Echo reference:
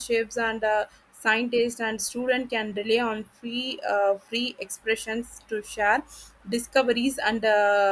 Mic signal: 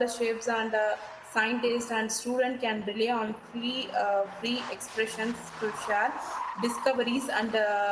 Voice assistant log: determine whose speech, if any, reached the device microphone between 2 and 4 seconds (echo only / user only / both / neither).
echo only